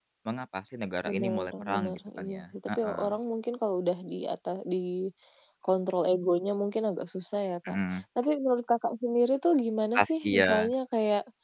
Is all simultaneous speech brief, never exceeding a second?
No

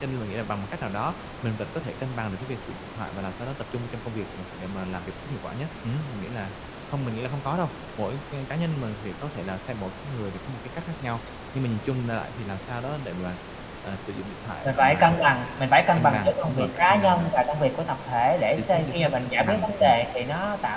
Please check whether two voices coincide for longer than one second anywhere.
Yes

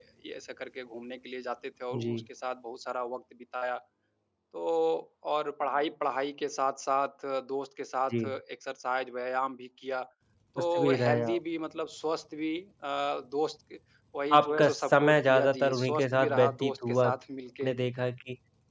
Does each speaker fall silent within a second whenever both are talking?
No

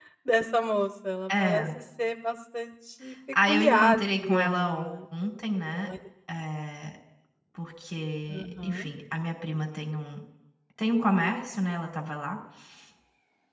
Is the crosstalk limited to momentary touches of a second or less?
No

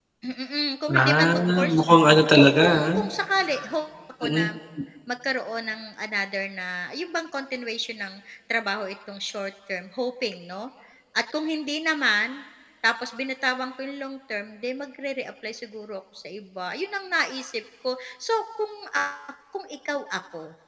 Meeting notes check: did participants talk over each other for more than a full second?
Yes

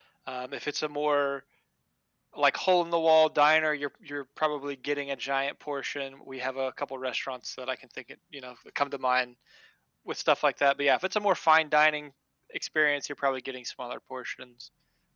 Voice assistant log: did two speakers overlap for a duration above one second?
No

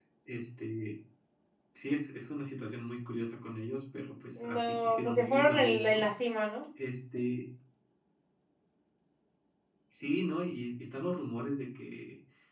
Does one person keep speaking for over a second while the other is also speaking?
Yes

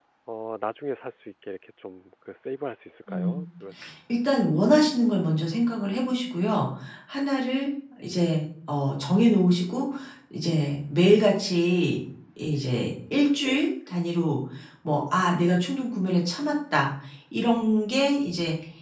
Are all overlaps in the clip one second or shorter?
Yes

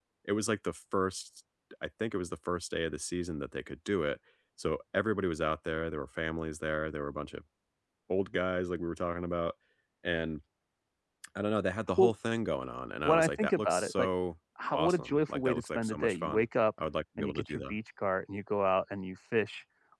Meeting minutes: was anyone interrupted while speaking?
Yes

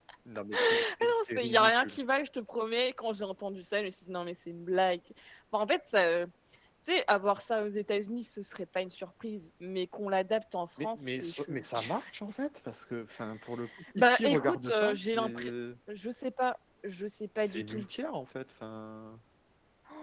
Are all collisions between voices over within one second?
No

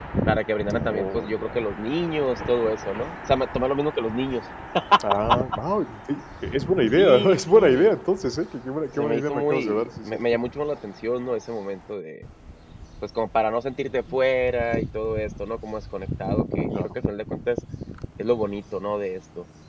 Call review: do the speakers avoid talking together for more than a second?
No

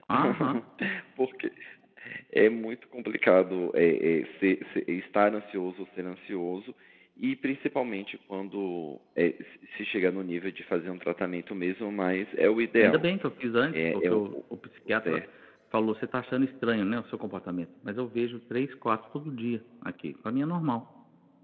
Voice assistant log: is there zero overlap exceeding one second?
Yes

